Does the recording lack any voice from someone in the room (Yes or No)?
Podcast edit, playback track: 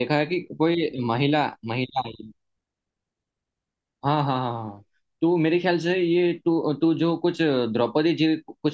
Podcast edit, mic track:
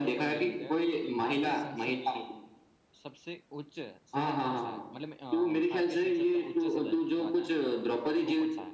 No